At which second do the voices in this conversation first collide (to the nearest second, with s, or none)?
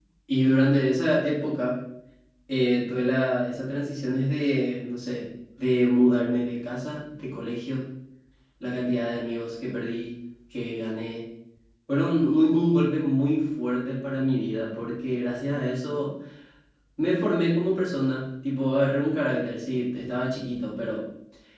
none